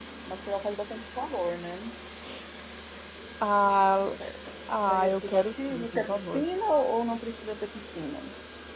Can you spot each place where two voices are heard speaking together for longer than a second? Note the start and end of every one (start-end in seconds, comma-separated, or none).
4.9-6.4